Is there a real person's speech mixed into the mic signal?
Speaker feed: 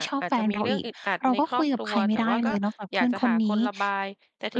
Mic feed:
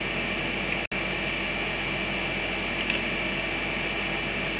No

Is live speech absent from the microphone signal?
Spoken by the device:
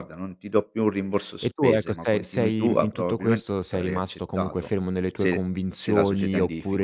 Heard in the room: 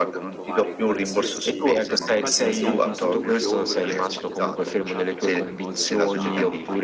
No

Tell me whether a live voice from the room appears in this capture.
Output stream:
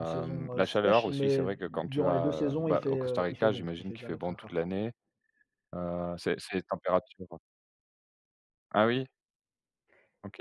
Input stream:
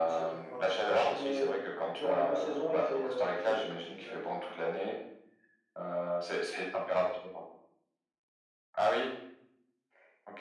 No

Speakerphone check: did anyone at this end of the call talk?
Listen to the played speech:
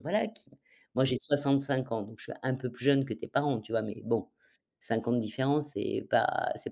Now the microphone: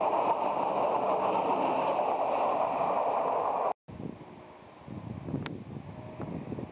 No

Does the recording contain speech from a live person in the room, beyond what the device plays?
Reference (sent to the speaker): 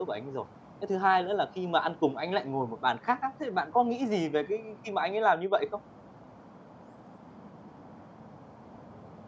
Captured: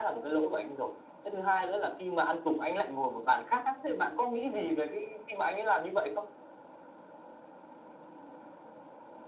No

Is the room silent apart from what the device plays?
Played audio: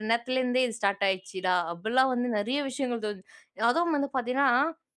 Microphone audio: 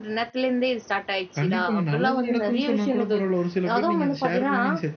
No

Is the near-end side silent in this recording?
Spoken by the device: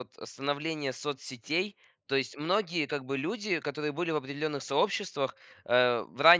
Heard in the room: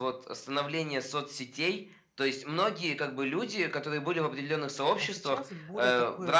No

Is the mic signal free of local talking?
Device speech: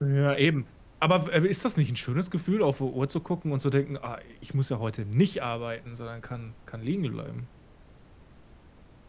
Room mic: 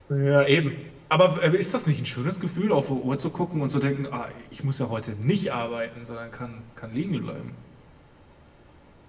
Yes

